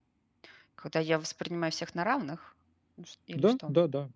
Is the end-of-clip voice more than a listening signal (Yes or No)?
Yes